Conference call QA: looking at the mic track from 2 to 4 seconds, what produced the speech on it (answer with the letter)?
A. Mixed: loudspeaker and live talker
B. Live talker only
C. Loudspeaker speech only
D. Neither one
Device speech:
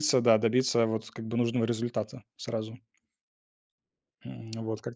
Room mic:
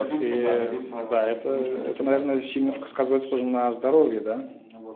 A